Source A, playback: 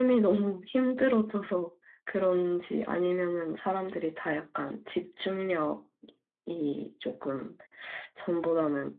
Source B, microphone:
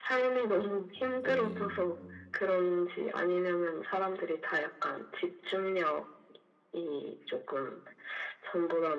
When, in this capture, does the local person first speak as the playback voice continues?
1 s

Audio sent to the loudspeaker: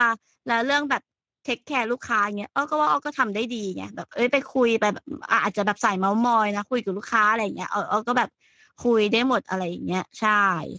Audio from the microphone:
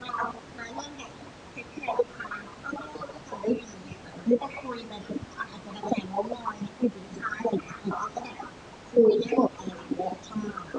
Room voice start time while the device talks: none

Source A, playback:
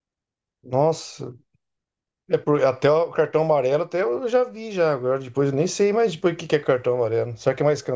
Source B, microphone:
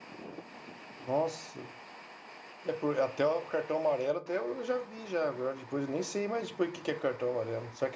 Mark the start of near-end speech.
none

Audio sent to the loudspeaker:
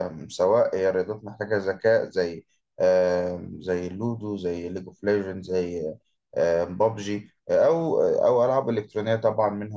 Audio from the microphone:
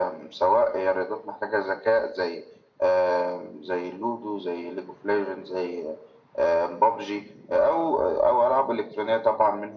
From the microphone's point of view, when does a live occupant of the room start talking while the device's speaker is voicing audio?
none

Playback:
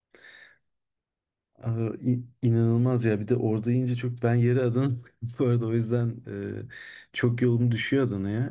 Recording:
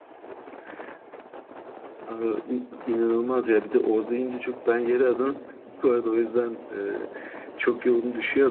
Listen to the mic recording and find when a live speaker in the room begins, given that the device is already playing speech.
none

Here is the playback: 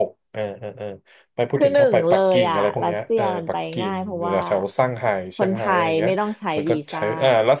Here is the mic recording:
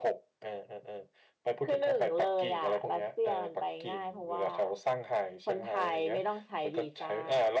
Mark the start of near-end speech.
none

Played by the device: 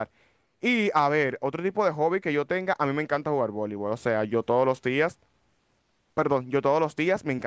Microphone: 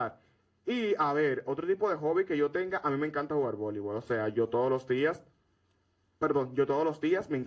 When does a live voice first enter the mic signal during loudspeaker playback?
none

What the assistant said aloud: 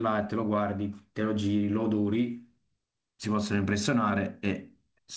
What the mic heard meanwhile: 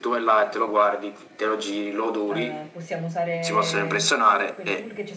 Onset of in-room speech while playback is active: 2 s

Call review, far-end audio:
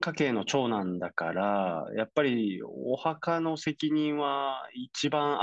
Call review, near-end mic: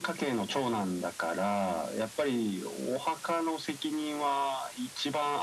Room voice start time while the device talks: none

